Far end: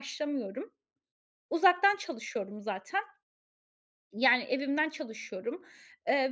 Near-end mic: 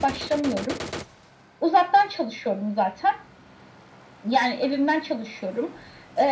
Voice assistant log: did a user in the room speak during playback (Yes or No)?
No